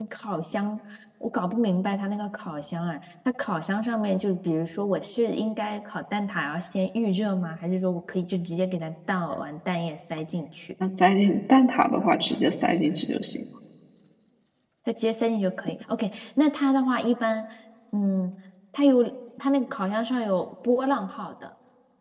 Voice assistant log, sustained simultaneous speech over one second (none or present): none